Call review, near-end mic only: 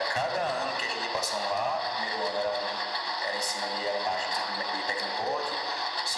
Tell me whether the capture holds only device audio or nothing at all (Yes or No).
Yes